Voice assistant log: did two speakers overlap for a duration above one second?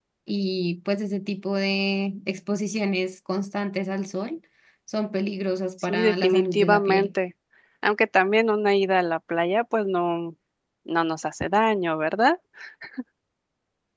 Yes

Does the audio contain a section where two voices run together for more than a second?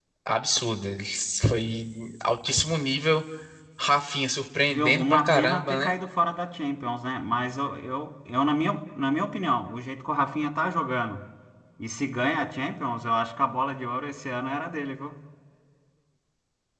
Yes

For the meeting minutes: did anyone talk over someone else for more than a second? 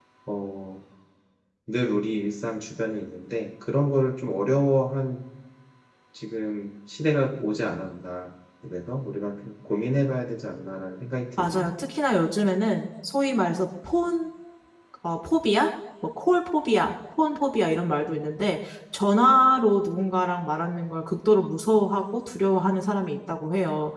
No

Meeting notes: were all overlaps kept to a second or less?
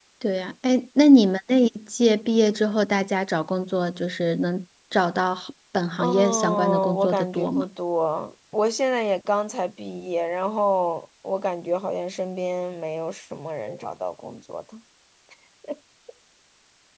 No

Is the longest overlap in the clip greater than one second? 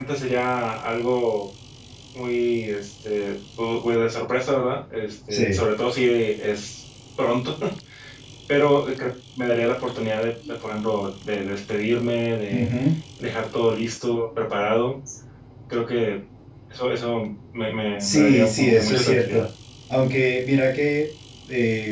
Yes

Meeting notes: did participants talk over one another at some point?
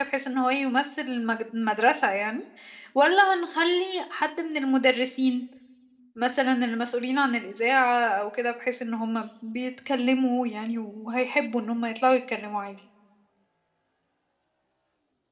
No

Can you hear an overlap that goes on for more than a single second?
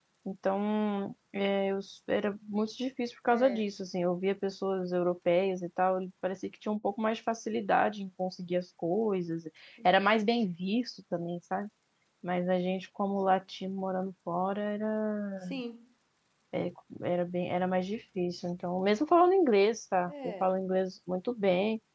No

